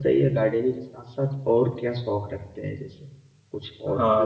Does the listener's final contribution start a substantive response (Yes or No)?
Yes